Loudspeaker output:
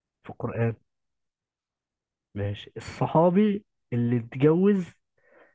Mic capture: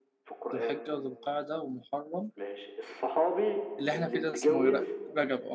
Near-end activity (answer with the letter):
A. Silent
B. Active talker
B